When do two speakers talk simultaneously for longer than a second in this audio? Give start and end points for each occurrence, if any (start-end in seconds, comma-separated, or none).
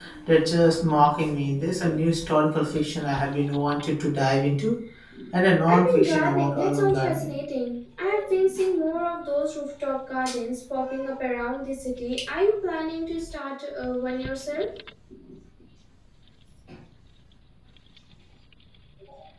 5.7-7.3